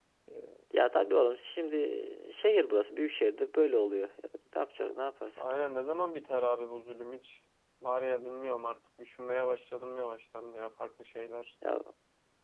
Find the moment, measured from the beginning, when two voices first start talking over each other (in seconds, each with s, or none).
none